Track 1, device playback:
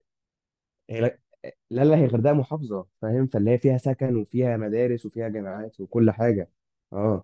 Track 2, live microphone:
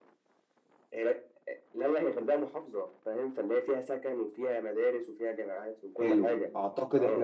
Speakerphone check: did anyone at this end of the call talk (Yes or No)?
Yes